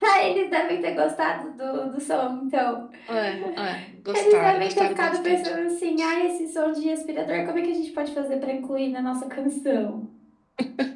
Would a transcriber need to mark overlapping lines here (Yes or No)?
Yes